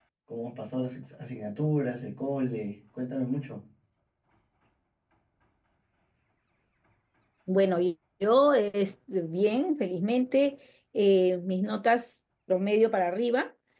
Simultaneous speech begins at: none

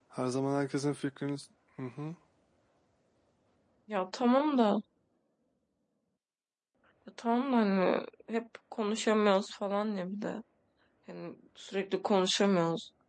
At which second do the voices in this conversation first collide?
none

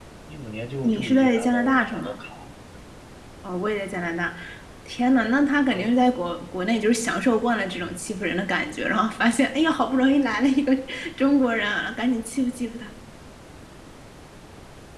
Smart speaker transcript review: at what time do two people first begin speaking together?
0.8 s

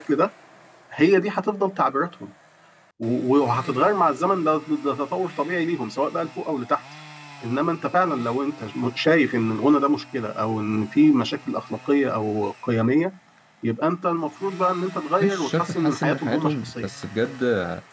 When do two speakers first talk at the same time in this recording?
15.2 s

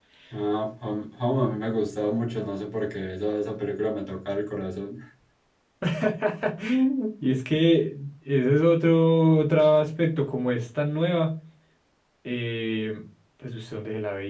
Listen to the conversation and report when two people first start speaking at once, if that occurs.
none

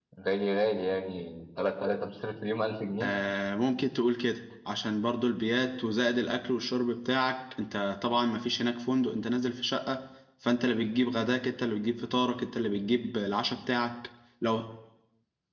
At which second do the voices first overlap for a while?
none

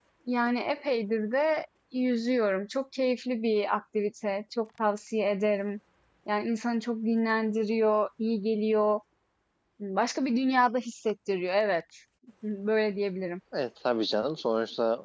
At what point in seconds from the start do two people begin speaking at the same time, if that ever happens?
none

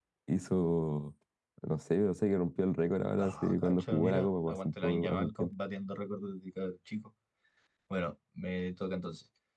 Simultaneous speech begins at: 3.2 s

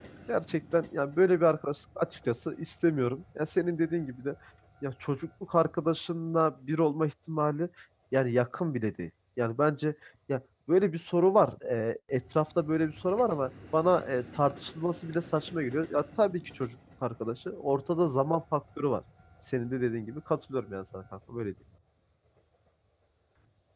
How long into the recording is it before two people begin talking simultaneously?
none

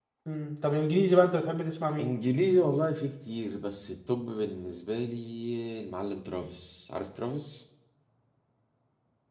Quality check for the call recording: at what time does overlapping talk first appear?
none

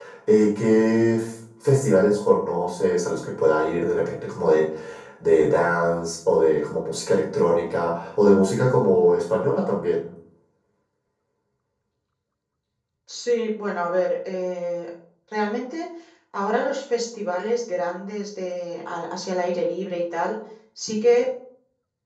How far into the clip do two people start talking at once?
none

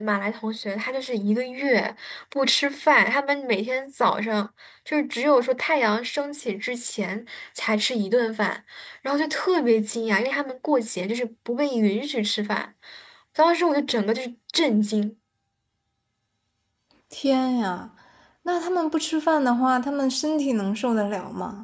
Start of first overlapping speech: none

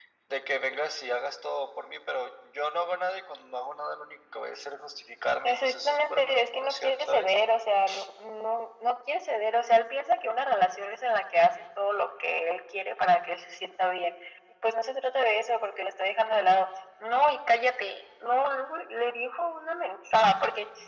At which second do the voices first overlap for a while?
5.4 s

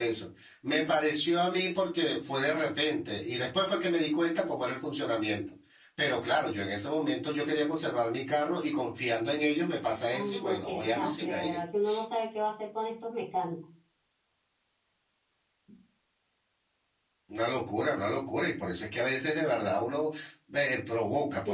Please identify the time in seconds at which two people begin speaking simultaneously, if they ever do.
10.1 s

